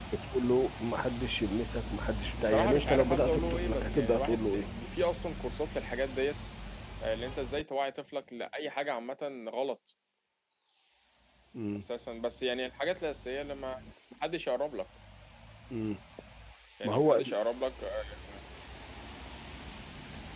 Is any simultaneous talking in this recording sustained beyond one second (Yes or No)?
Yes